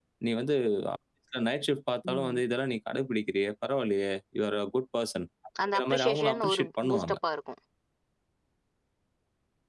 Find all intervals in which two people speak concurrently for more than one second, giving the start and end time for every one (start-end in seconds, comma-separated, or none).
5.7-7.2